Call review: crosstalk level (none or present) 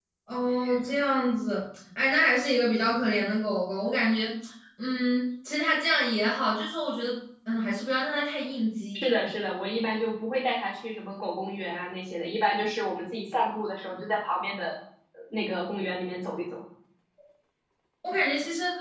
none